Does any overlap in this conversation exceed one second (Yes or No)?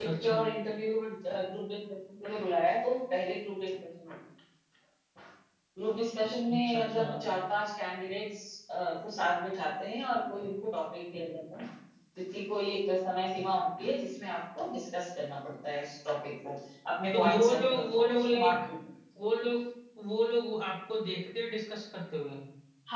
Yes